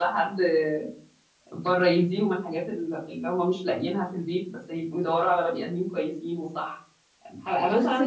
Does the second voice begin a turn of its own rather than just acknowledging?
No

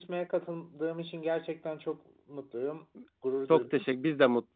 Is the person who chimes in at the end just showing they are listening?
No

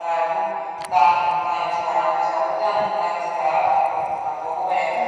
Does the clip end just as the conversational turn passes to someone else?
No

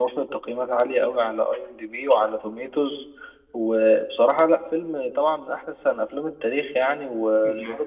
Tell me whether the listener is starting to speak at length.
No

